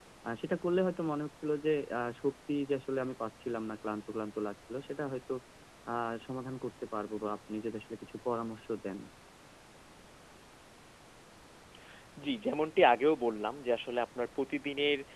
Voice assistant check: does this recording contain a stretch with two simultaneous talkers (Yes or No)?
No